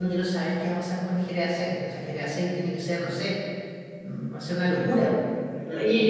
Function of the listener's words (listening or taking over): taking over